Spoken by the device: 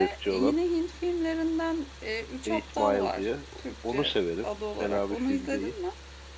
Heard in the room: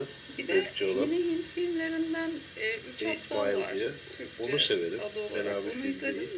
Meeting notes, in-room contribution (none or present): none